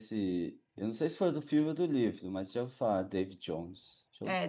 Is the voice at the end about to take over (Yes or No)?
Yes